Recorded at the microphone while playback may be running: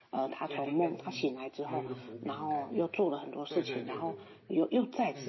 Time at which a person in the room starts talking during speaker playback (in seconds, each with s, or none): 0.4 s